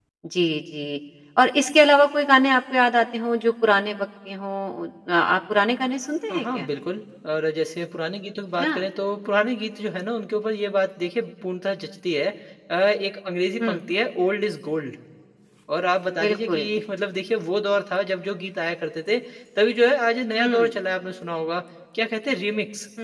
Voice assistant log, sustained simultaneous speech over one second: none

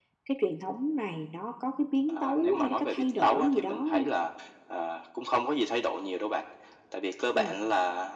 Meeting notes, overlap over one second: present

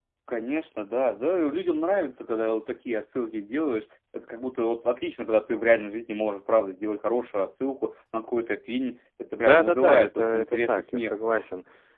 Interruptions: present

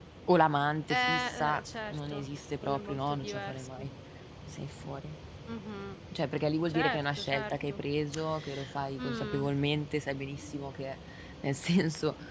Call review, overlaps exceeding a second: present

